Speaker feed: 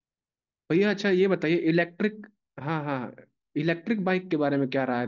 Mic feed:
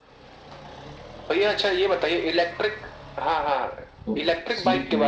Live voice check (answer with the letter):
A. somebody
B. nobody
A